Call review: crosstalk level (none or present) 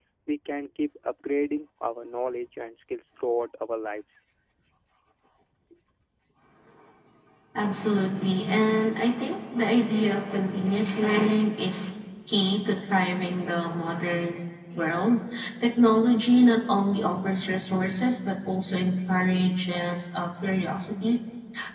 none